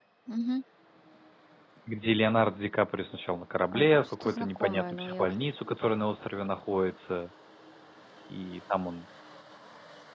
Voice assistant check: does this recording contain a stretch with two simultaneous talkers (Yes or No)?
Yes